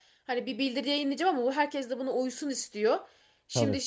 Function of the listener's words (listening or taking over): listening